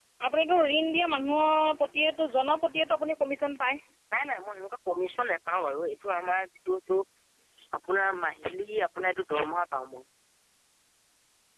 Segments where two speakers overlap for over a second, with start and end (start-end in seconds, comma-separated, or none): none